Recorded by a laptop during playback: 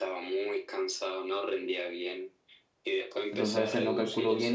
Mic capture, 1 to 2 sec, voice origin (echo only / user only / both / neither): echo only